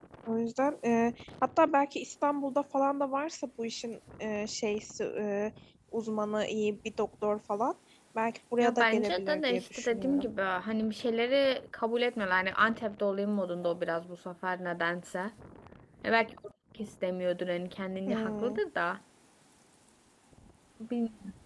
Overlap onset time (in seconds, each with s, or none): 8.6 s